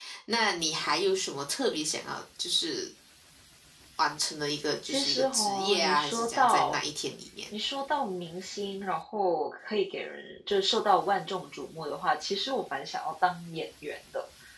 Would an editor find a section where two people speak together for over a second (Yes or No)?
Yes